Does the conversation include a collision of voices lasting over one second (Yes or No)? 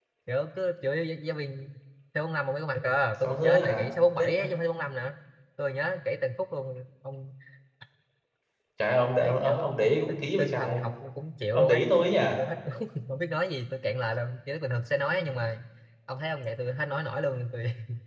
Yes